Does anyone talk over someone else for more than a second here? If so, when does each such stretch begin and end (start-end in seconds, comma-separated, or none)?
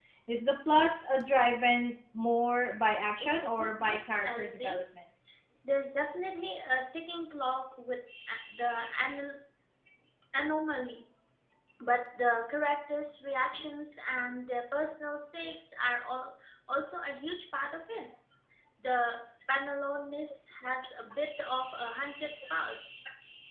3.2-4.8